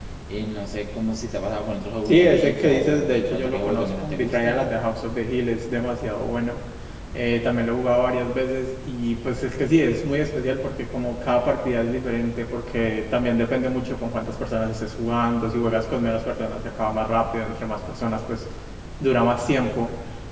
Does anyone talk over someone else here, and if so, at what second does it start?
2.0 s

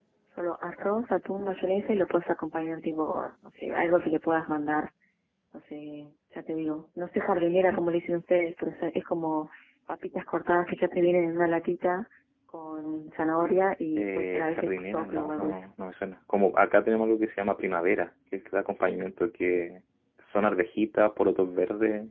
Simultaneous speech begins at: 14.0 s

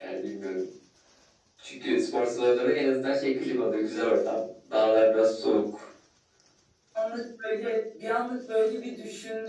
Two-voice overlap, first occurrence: none

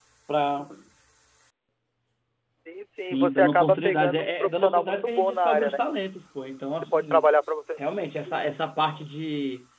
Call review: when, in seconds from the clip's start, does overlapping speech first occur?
3.0 s

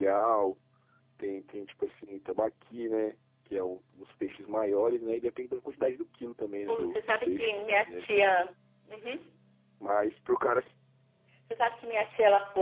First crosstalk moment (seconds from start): 6.7 s

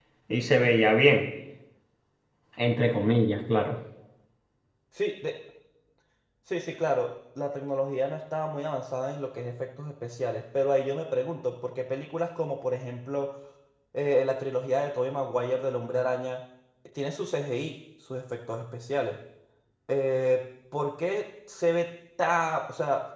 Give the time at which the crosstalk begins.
none

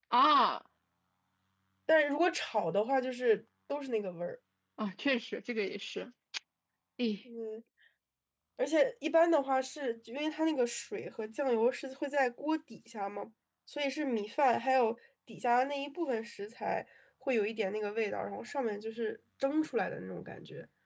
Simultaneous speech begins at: none

